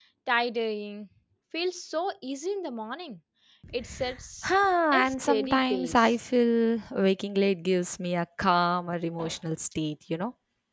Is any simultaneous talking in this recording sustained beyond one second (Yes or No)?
Yes